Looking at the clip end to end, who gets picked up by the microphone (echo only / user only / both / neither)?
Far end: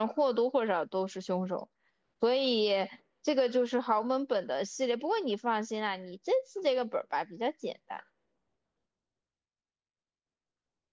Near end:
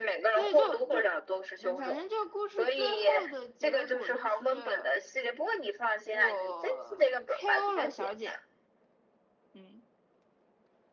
both